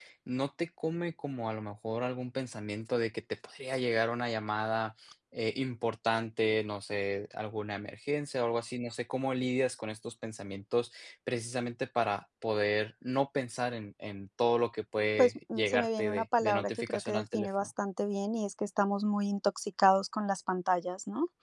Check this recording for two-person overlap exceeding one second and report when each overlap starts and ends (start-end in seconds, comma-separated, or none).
15.2-17.7